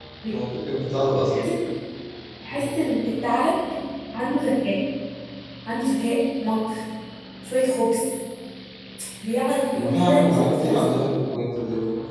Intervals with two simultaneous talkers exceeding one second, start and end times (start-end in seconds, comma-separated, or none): 9.7-11.0